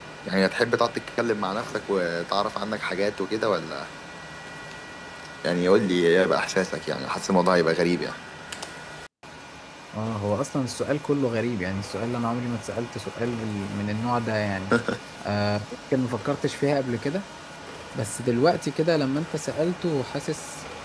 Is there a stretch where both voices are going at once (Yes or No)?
No